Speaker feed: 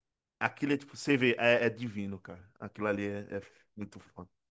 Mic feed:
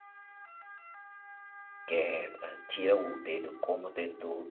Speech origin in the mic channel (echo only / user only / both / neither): user only